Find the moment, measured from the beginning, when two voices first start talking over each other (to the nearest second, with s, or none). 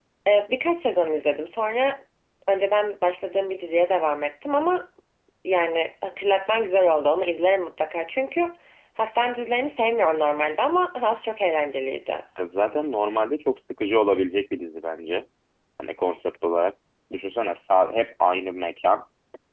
none